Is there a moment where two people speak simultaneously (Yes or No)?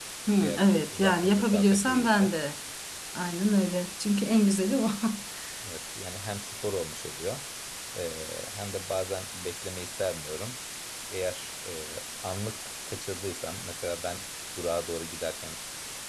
Yes